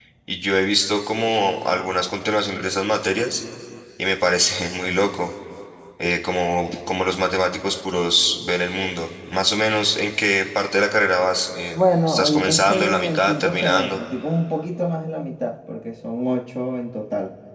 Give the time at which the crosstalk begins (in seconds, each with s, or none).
11.7 s